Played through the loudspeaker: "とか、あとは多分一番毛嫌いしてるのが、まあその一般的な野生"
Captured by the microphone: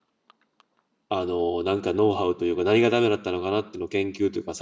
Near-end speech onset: 1.1 s

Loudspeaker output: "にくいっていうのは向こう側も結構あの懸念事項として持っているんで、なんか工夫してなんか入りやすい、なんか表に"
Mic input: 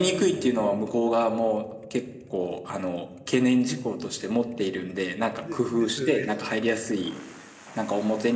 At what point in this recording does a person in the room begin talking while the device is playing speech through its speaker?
5.4 s

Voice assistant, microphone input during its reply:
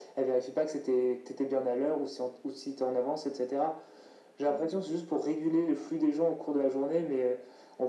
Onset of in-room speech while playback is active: none

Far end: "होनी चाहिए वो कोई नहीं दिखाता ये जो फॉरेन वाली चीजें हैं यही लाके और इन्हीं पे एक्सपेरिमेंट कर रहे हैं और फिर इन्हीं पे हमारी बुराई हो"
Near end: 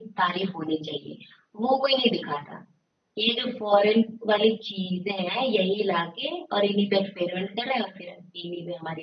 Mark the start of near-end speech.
none

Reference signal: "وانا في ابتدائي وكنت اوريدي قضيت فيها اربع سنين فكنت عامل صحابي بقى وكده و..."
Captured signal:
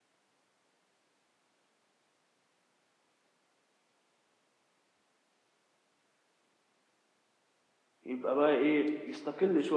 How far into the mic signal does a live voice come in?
8.1 s

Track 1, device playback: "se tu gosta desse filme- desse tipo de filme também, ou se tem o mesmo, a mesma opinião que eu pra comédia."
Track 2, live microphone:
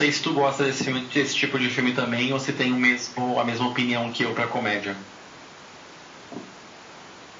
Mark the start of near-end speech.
none

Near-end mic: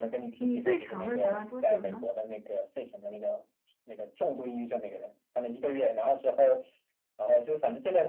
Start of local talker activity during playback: 0.4 s

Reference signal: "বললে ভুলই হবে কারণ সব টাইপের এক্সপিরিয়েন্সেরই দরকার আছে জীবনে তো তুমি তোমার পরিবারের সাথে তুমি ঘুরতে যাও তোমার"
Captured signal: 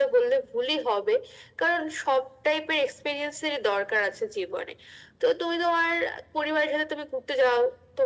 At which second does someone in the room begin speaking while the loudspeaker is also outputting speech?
none

